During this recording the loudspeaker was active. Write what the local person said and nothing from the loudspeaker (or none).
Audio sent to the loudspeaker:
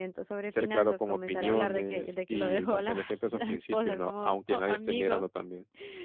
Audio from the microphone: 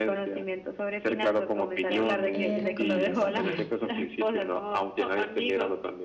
eh, recomiendas seguir?